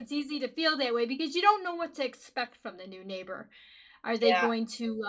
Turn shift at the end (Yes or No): No